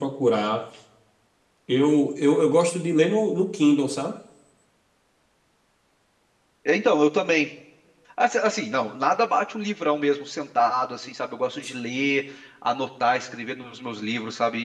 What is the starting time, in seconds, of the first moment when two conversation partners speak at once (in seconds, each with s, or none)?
none